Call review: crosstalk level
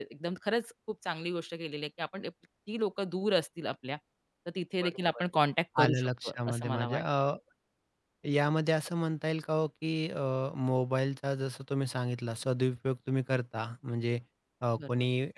present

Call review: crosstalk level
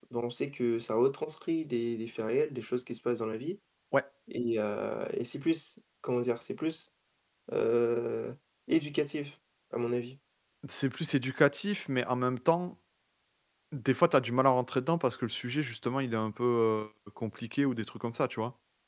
none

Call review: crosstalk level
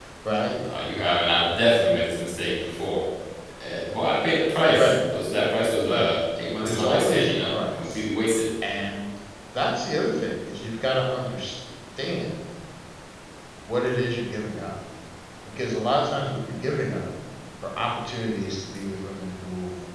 present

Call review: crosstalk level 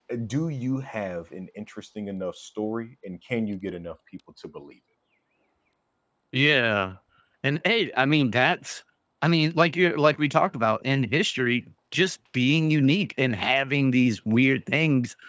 none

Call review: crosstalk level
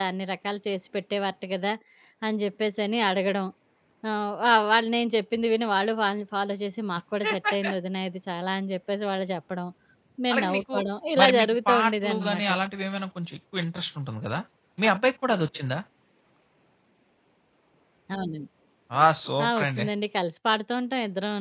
present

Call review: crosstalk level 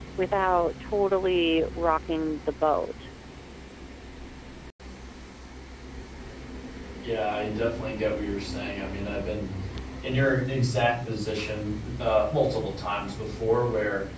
none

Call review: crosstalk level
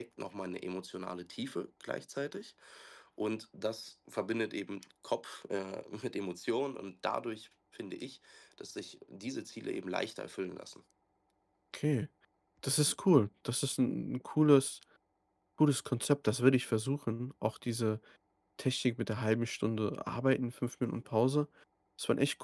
none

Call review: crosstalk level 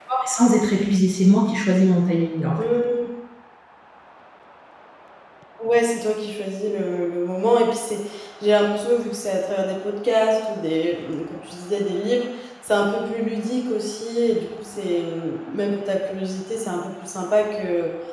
none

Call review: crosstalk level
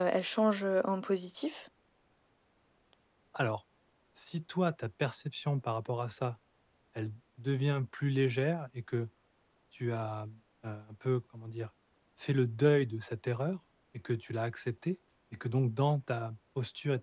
none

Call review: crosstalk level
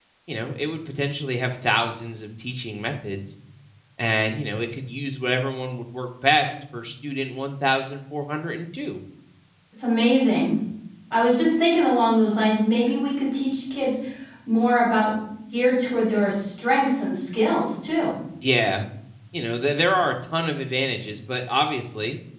none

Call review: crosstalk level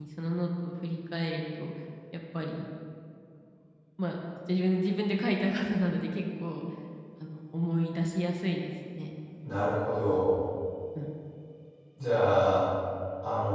none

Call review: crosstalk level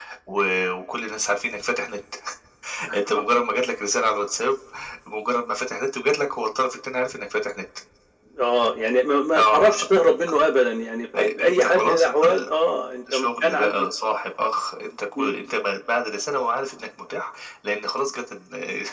present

